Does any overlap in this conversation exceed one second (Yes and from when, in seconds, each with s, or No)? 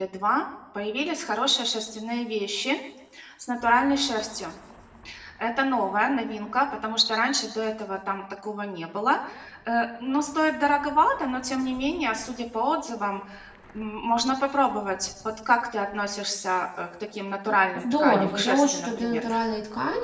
Yes, from 17.7 s